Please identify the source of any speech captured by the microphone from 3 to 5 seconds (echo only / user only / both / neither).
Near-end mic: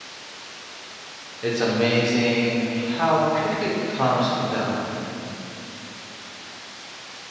user only